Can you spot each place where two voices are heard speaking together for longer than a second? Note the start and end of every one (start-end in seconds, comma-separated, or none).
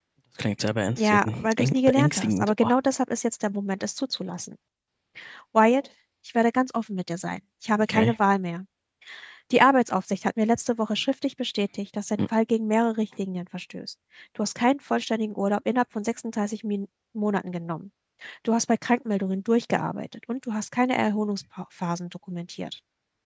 1.0-2.7